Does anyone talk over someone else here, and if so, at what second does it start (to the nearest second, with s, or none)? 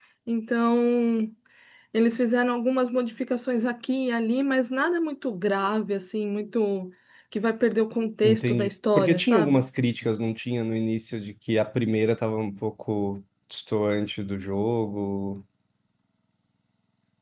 8 s